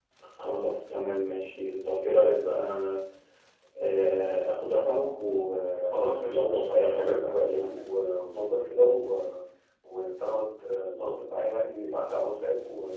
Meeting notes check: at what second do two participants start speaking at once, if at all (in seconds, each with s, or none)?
5.9 s